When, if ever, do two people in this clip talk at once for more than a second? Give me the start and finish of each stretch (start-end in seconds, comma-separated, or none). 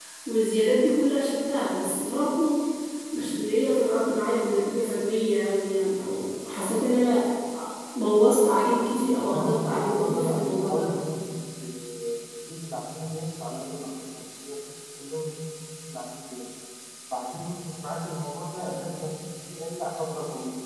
9.3-10.9